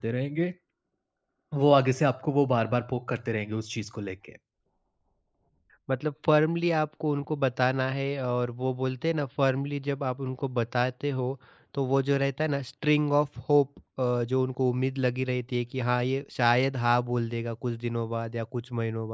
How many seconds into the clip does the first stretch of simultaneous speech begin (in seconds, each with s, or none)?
none